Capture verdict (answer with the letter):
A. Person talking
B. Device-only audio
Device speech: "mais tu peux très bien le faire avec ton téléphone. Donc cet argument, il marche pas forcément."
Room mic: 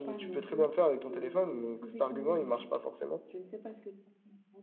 A